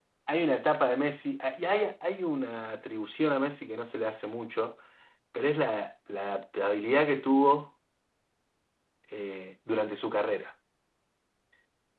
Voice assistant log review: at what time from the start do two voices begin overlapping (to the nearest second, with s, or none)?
none